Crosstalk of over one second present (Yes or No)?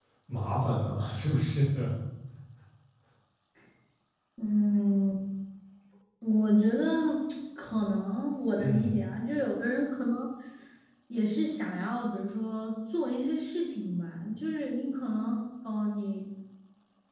No